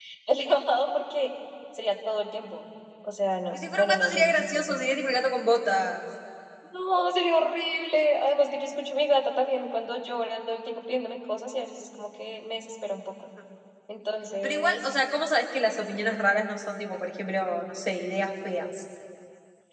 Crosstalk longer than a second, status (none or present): present